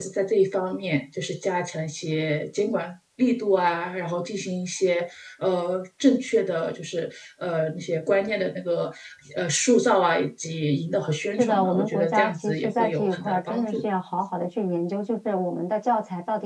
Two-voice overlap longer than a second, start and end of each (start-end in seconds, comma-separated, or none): 11.4-13.9